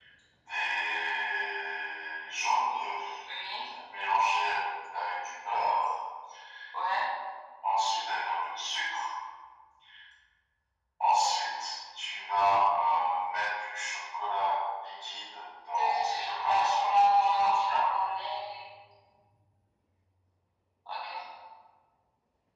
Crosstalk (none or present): present